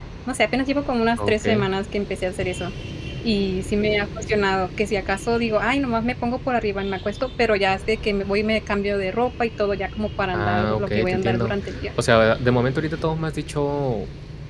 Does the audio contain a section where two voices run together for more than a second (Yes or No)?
Yes